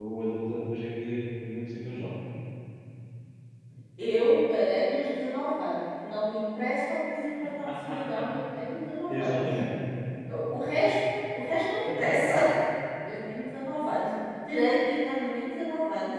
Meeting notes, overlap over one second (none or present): none